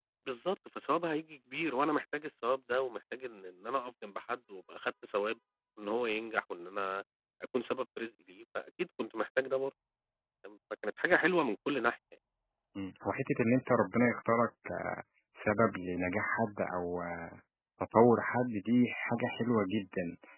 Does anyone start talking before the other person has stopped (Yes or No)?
No